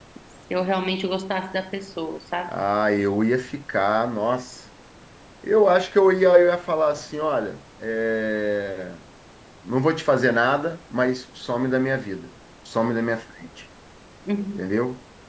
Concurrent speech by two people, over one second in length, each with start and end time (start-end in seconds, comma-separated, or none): none